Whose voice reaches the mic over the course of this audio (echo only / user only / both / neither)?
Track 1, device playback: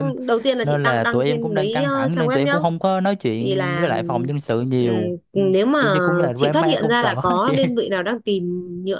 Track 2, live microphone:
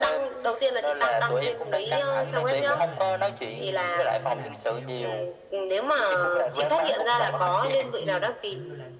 both